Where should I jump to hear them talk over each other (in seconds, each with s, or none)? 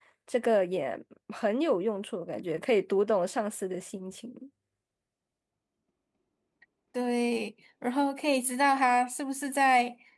none